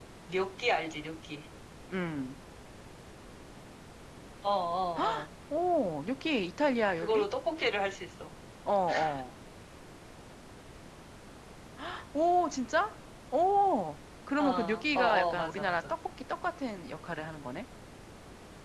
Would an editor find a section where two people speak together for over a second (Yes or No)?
Yes